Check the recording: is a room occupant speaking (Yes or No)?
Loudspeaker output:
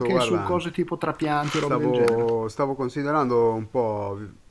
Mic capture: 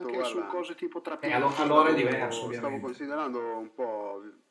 Yes